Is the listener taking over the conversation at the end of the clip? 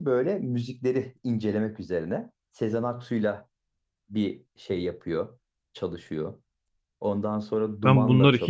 Yes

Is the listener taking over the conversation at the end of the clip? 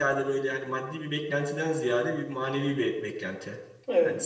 No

